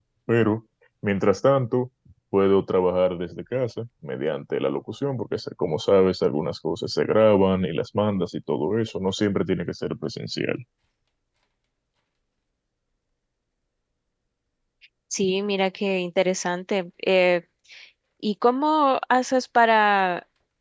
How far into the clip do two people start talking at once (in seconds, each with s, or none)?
none